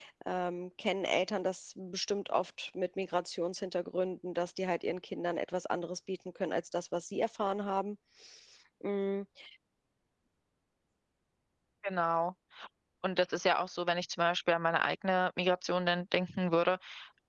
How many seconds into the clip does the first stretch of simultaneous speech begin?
none

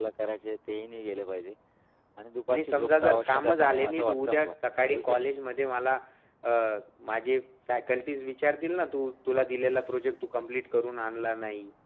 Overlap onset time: 2.5 s

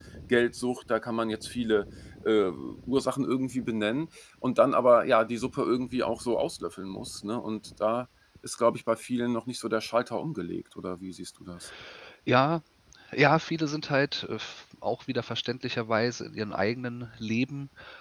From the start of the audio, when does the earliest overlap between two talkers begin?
none

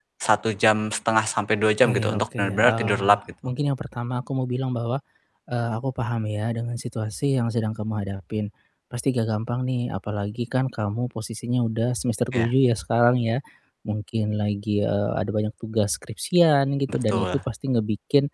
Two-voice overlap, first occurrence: 1.8 s

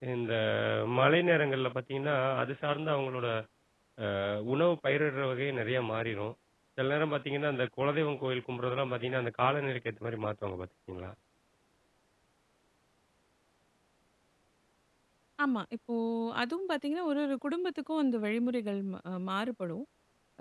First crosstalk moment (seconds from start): none

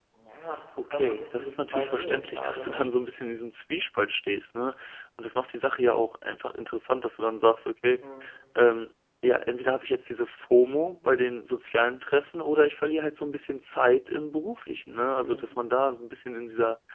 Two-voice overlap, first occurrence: 0.9 s

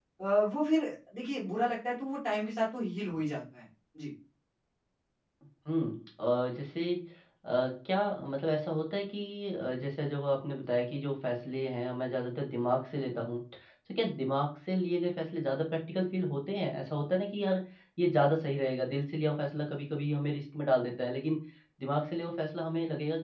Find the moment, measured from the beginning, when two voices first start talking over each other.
none

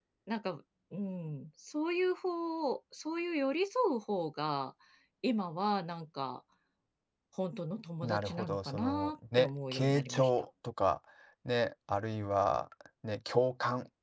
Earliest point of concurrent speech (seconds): 8.0 s

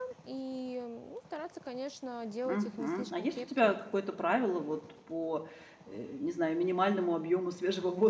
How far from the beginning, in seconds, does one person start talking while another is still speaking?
2.5 s

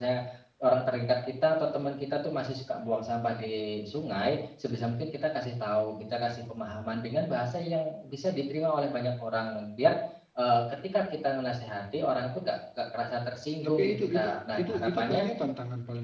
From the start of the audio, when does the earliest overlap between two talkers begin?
13.6 s

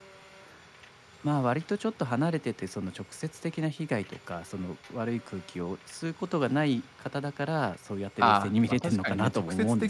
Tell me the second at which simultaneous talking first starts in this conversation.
8.2 s

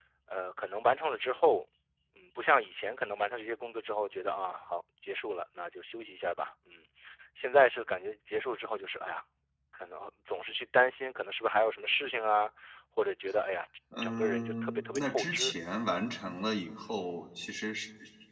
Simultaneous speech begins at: 13.9 s

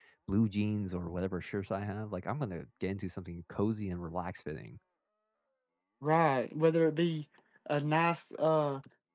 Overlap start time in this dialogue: none

